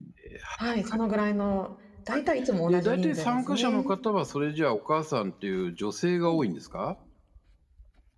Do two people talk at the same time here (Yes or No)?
Yes